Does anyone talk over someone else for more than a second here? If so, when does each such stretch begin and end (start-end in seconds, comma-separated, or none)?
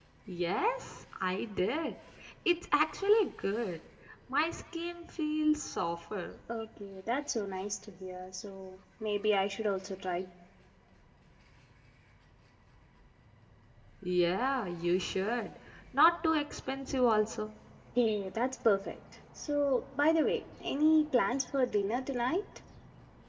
none